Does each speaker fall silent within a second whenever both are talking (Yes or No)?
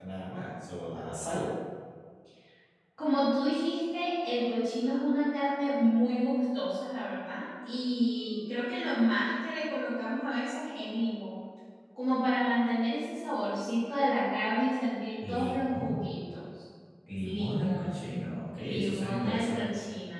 No